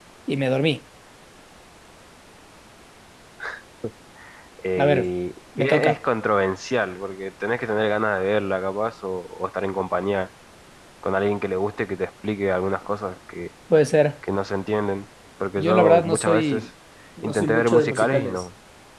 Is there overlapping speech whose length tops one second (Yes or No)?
Yes